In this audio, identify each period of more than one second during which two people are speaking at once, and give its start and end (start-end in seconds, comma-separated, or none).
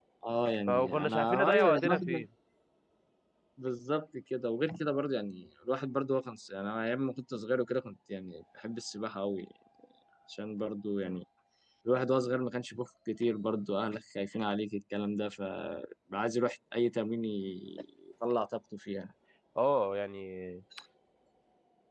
0.7-2.3